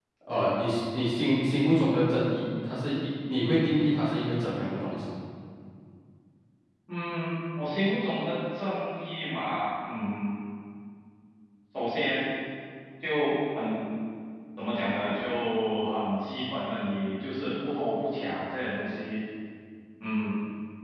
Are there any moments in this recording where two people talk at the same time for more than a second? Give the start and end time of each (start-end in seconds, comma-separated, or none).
none